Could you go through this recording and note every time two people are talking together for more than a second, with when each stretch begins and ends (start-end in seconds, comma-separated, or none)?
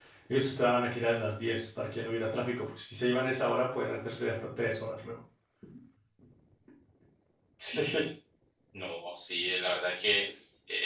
none